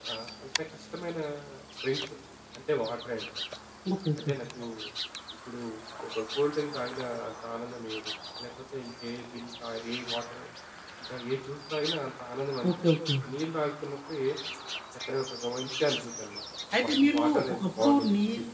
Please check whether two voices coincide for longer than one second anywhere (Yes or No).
Yes